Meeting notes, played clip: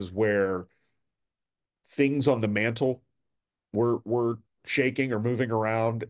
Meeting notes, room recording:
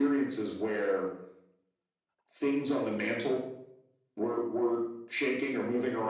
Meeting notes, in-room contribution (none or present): none